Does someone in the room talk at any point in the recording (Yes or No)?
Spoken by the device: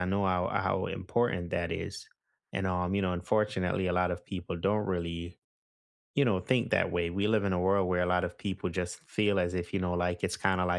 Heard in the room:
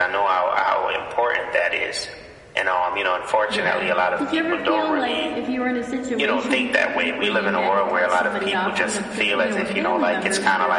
Yes